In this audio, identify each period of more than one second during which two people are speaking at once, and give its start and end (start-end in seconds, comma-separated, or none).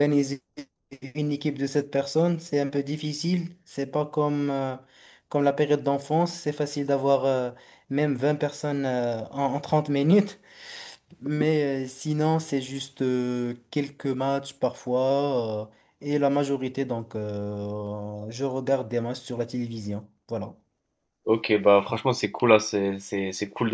none